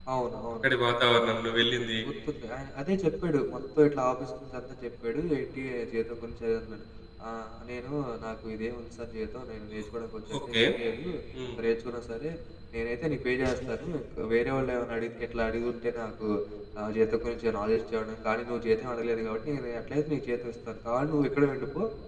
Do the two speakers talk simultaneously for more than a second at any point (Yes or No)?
No